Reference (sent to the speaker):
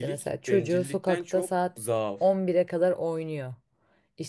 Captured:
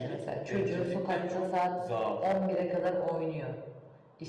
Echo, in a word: present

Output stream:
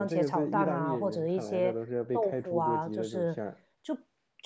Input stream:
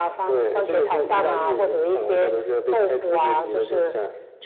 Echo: present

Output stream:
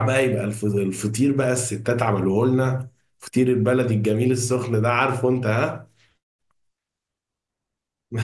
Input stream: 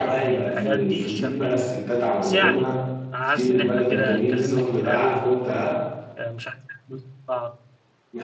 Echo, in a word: present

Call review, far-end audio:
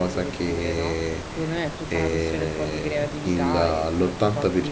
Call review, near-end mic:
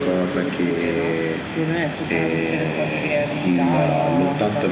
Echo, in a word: present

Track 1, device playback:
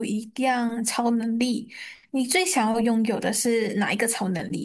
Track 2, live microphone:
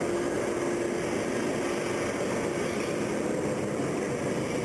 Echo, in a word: none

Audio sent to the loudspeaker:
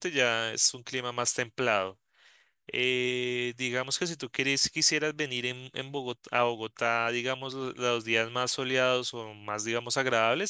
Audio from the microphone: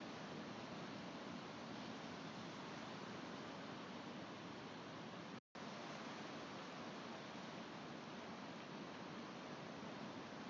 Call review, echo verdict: none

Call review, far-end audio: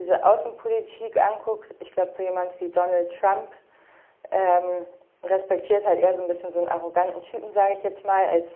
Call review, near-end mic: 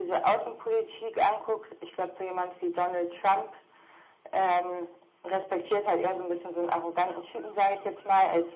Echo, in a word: present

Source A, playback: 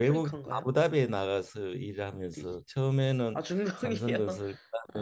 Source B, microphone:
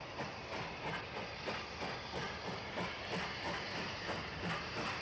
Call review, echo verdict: none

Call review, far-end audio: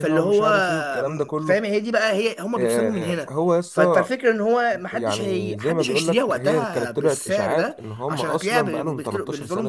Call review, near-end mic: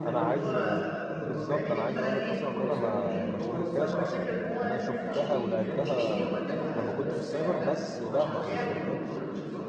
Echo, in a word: present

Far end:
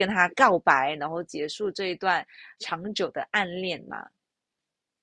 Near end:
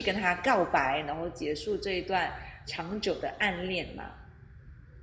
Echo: present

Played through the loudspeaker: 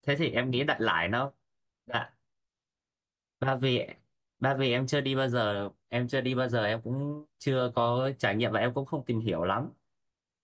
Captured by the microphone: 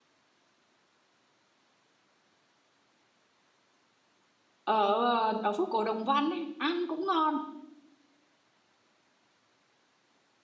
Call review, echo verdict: none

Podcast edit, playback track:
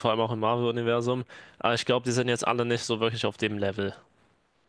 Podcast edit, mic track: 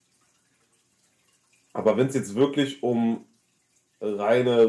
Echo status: none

